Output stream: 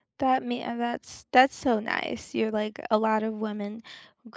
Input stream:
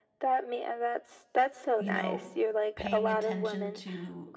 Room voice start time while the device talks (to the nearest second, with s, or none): 2 s